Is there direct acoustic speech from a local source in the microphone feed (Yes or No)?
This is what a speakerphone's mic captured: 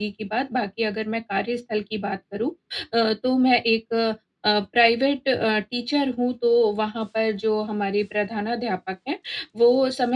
Yes